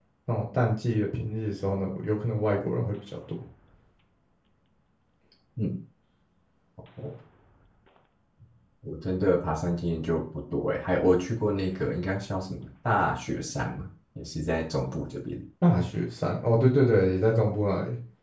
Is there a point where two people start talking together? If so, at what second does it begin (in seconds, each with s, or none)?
none